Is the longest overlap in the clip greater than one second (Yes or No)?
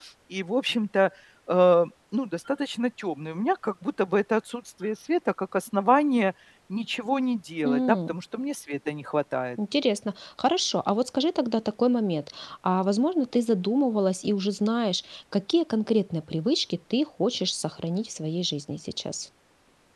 No